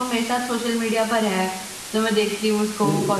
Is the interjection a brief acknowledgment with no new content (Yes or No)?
Yes